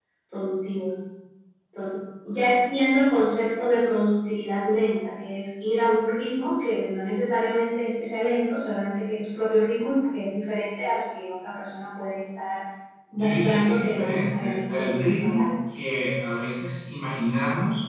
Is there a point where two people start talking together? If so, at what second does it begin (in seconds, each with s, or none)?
13.1 s